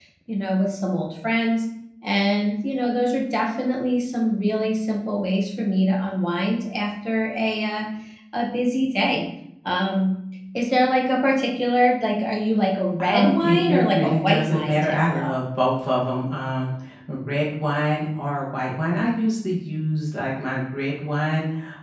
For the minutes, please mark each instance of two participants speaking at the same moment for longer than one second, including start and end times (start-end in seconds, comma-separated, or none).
13.1-15.3